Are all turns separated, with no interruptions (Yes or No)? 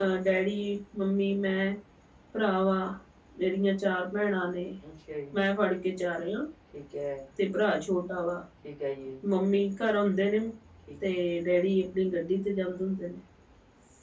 Yes